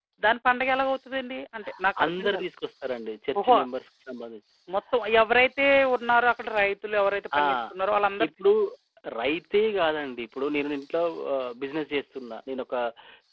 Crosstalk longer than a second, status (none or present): none